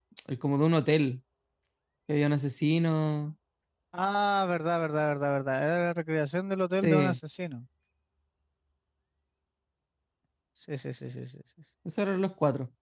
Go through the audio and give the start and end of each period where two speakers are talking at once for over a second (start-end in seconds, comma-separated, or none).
none